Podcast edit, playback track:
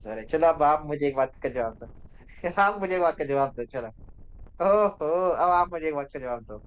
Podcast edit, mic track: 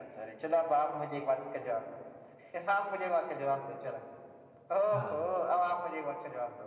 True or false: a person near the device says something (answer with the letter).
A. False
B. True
B